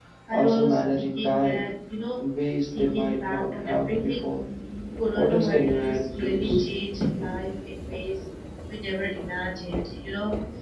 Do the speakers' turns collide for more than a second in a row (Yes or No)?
Yes